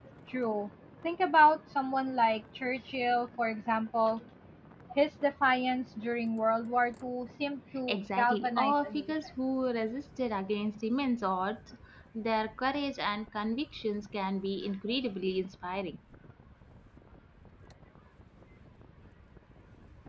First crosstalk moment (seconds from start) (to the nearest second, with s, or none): 8 s